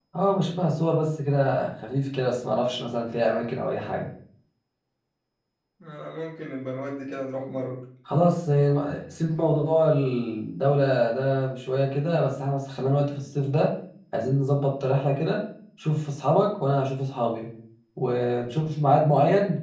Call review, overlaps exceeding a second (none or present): none